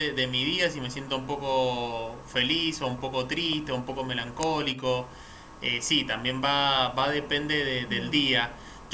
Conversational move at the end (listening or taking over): listening